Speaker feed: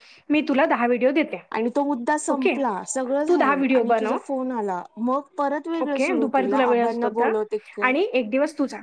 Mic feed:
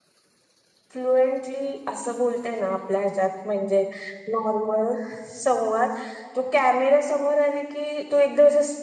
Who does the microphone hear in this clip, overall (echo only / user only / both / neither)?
user only